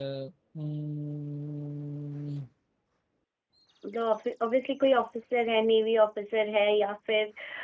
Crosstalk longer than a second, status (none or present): none